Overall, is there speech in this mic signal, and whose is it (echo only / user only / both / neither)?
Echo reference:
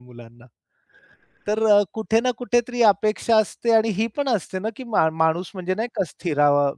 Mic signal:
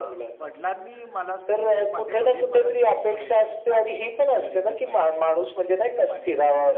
both